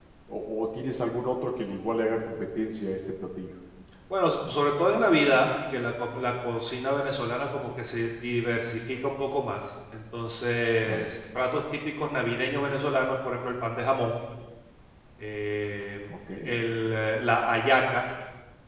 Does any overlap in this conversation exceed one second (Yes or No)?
No